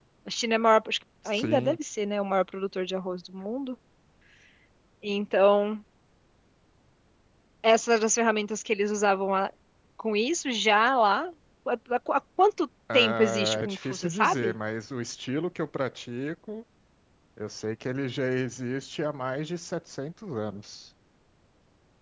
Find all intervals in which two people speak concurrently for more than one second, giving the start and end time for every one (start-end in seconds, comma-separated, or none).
12.9-14.5